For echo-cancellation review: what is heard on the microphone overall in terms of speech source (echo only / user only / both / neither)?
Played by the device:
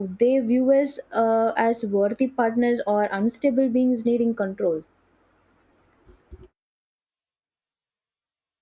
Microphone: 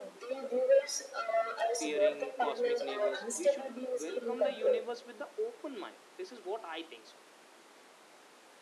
both